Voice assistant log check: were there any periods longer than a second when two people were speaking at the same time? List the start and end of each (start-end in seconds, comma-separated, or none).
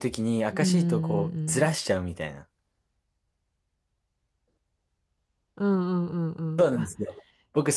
0.5-1.7